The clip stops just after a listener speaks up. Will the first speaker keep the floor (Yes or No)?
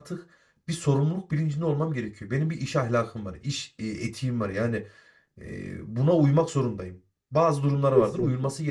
Yes